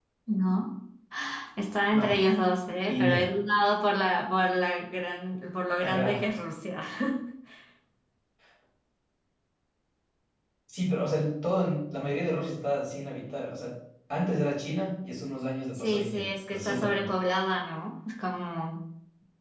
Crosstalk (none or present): present